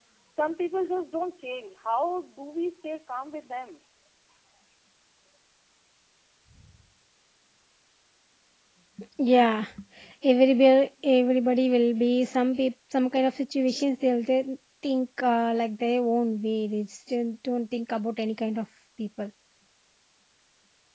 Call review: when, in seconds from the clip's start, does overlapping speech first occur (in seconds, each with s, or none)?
none